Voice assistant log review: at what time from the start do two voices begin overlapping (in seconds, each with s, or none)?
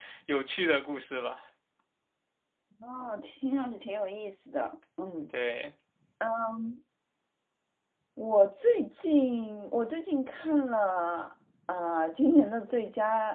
none